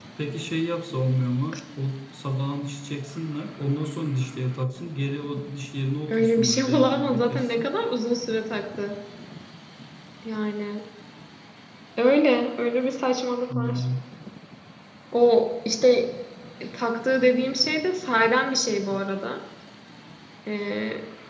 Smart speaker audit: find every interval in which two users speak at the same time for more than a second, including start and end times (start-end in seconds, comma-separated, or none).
6.1-7.7